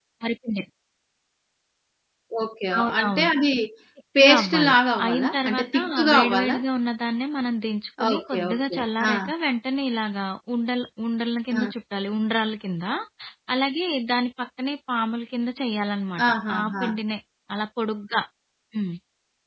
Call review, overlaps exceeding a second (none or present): present